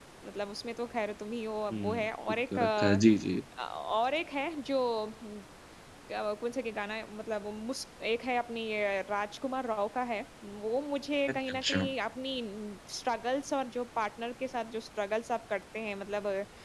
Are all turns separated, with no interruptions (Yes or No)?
No